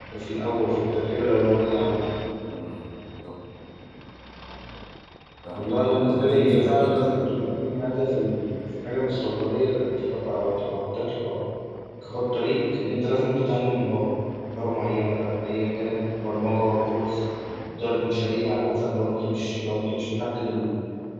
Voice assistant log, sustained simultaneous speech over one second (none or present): present